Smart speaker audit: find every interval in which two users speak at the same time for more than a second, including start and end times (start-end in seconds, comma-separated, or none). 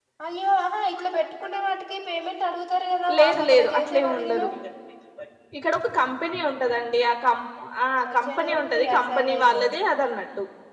3.2-4.4, 8.1-9.6